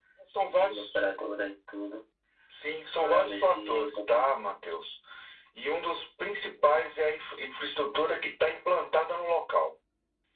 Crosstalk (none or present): present